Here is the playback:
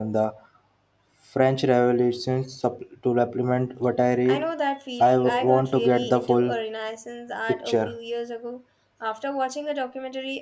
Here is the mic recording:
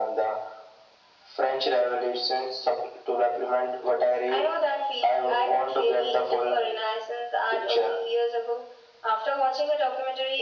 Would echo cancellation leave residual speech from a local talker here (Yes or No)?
No